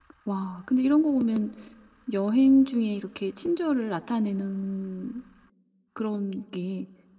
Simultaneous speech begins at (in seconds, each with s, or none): none